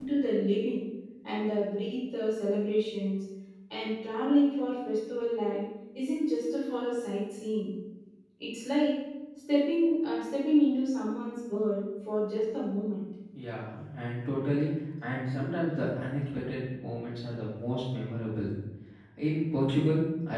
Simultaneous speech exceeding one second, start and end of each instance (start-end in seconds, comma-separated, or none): none